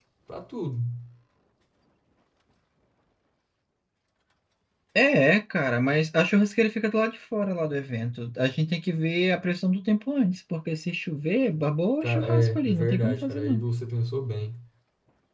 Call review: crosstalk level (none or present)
present